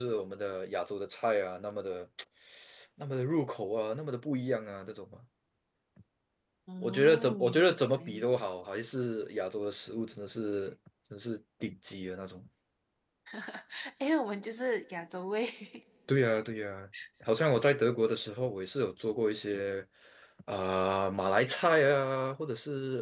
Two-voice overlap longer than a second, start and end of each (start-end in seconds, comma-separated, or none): 6.8-8.2